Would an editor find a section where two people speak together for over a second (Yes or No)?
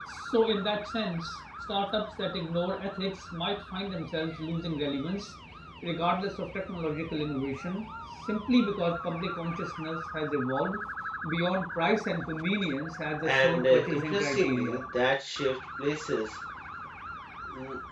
Yes